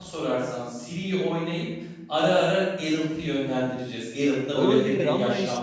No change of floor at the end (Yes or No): No